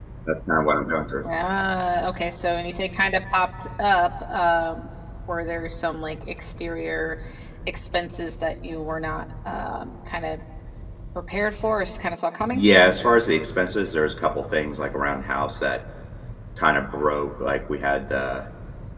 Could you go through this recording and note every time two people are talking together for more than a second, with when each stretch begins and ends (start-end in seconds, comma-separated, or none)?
none